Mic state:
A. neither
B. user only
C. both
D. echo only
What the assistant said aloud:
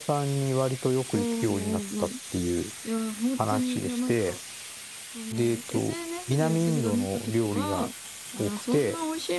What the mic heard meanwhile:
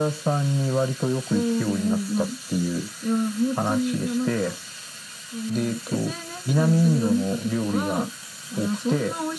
D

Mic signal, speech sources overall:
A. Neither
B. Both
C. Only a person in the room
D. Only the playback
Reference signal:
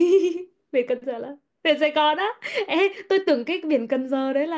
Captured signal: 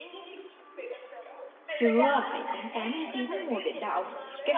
B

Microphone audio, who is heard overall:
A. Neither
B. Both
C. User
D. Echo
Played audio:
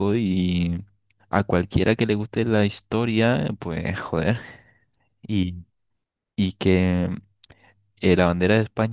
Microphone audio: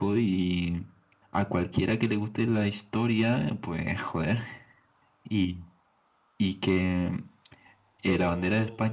B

